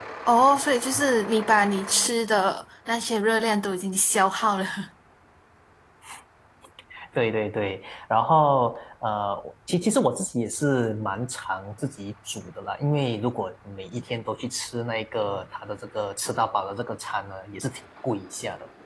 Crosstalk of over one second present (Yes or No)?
No